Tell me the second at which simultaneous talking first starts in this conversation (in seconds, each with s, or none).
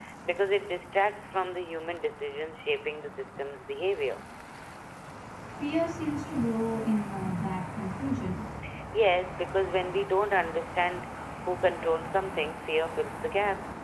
none